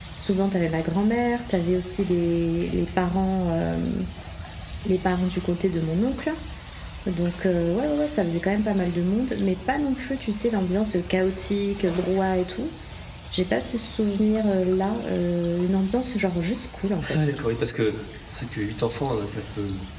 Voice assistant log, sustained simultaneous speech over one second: none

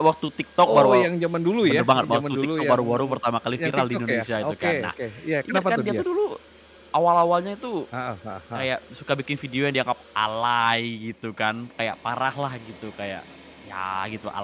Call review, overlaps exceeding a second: present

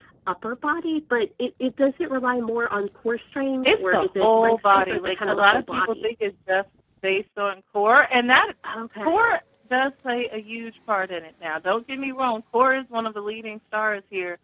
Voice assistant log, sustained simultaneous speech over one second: present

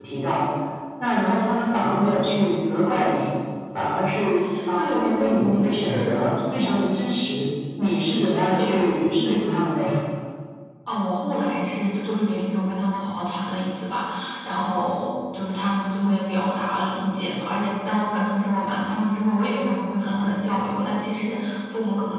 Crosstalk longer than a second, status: present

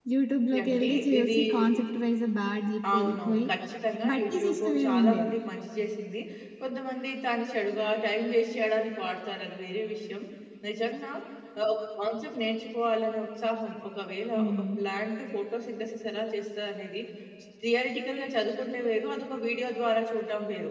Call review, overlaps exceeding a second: present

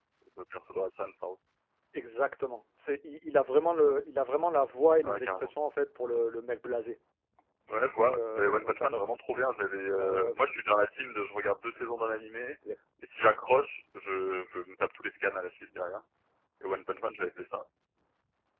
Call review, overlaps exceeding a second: present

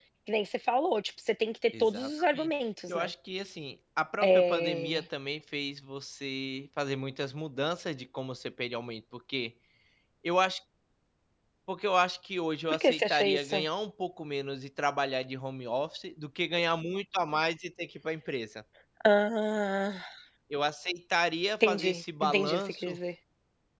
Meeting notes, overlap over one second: present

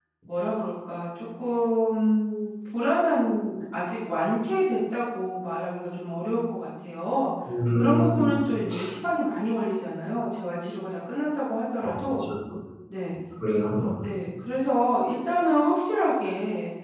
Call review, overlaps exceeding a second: none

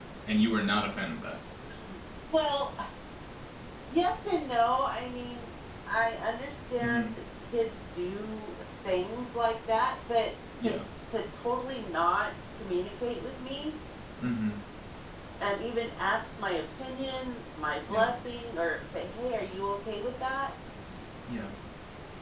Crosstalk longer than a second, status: none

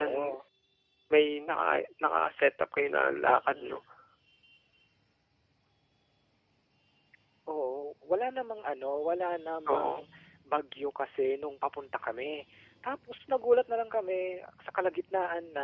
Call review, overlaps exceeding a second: none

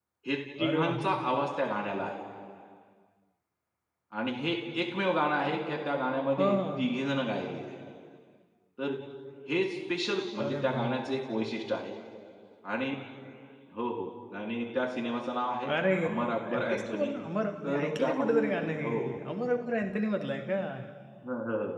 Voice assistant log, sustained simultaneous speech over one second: present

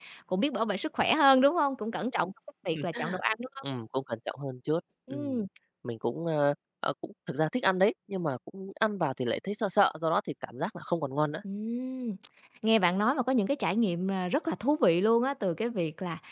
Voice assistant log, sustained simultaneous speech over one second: none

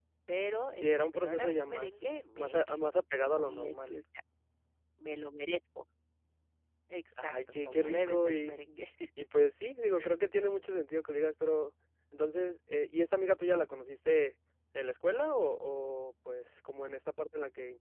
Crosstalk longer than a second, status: present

